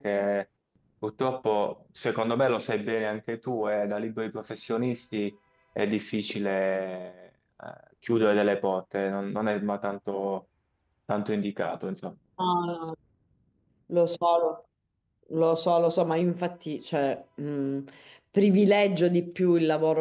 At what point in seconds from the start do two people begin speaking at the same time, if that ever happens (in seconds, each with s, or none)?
none